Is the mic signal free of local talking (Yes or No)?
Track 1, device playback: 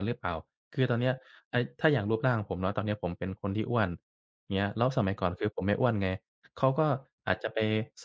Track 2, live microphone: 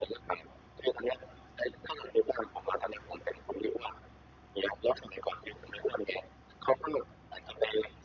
Yes